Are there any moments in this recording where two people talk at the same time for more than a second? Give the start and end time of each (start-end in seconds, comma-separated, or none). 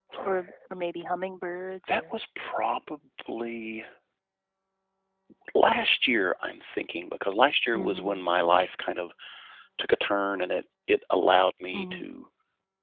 none